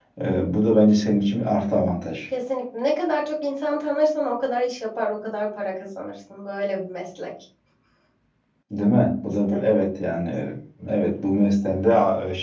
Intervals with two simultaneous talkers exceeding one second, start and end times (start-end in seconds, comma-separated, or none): none